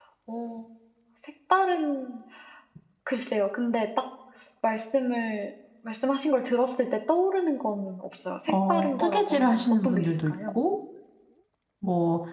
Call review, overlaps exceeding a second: present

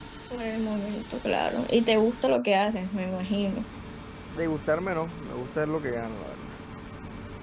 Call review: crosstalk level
none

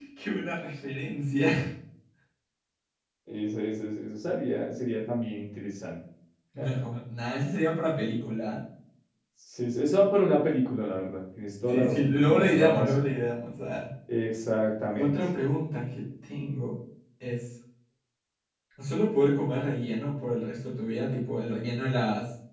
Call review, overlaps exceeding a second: present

